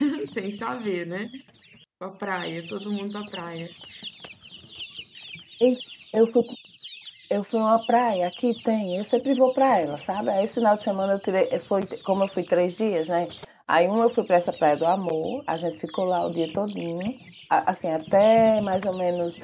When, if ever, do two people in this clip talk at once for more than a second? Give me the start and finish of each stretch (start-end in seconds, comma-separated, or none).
none